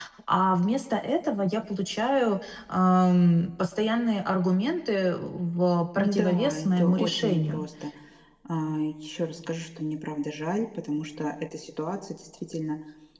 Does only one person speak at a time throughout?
No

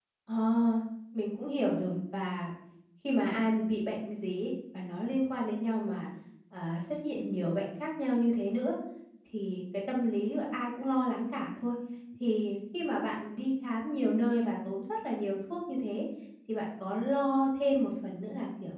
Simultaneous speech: No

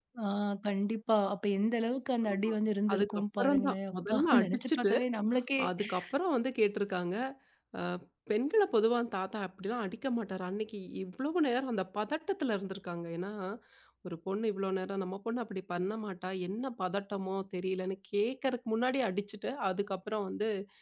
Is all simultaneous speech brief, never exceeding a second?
No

